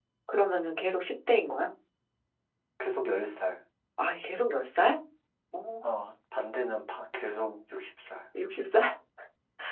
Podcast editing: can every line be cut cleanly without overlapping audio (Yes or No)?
Yes